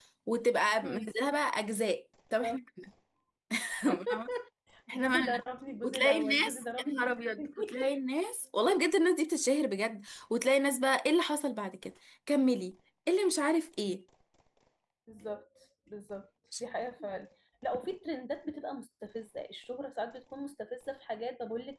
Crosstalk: present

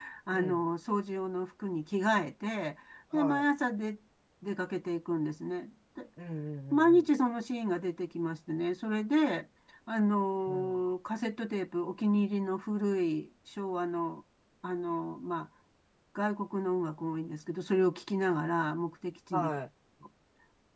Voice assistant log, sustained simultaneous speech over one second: none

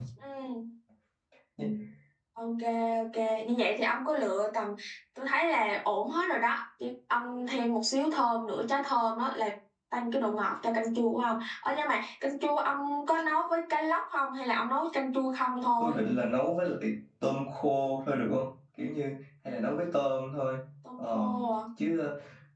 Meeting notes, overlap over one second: none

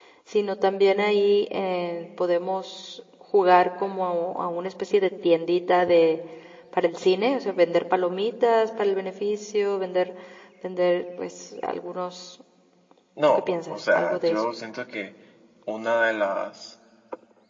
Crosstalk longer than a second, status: present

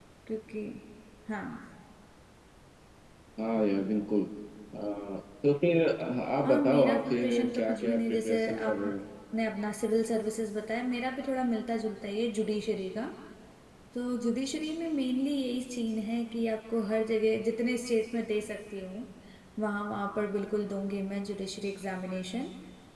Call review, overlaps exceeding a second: present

